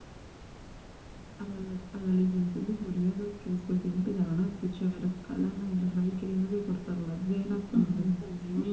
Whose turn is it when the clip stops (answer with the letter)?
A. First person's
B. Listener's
B